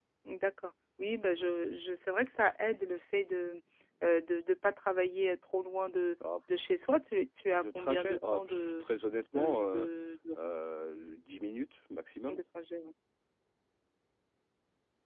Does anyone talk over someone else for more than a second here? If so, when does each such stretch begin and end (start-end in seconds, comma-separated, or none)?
7.6-8.8